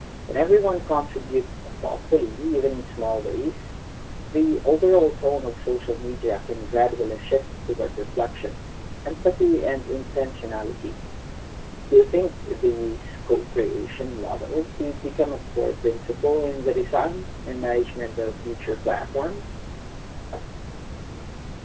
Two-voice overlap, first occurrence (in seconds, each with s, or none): none